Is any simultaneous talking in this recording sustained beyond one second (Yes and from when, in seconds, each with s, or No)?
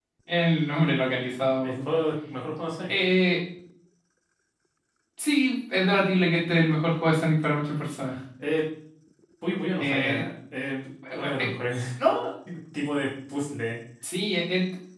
No